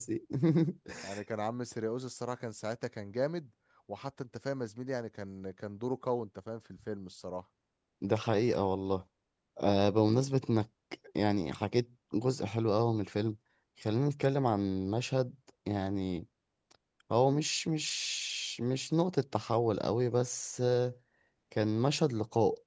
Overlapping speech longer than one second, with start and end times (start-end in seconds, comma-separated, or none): none